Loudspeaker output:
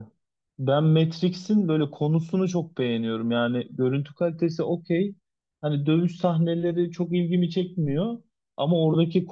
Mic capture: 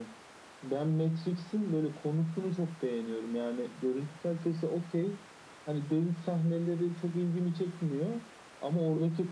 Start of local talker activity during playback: none

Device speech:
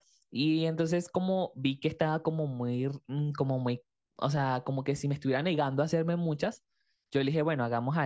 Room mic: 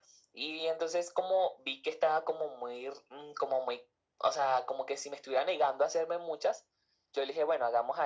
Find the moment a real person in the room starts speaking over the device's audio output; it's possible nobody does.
none

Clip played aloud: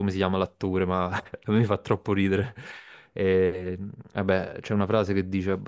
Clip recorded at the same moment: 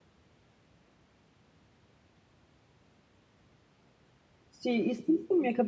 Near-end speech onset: 4.5 s

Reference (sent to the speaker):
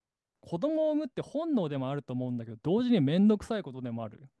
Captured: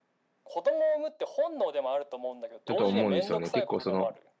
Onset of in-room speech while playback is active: 2.6 s

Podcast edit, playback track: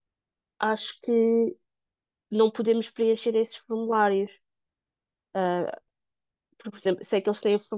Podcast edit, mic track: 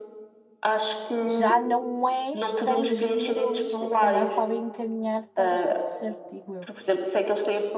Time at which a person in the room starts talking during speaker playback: 1.2 s

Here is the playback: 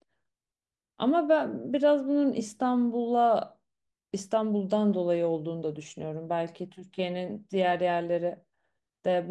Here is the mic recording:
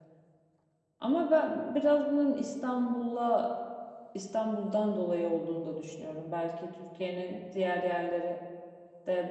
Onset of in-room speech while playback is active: none

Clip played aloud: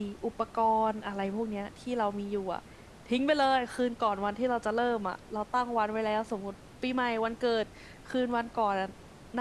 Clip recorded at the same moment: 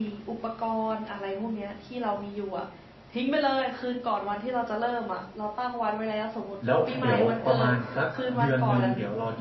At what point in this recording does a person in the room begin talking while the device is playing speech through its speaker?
6.6 s

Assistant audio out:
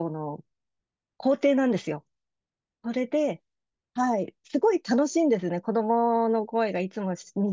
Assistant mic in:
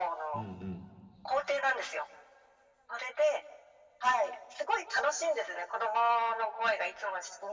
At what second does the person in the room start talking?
0.3 s

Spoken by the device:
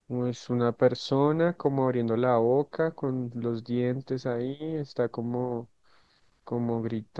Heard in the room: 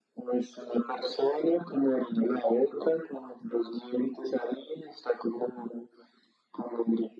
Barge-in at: none

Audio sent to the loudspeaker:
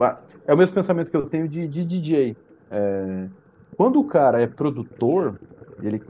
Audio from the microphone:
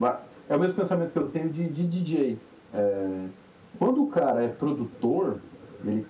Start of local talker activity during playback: none

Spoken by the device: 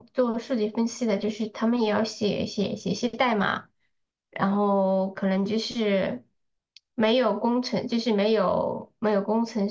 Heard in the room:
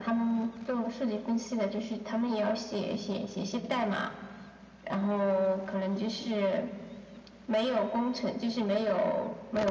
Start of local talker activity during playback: none

